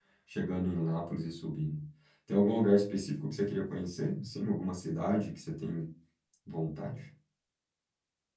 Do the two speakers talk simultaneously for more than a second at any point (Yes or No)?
No